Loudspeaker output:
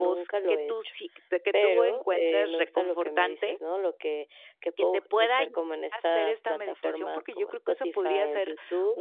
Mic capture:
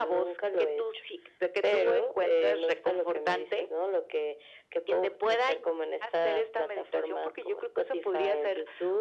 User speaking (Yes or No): No